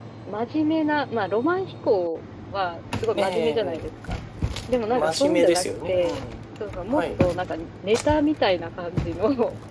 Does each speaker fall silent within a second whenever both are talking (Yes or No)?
No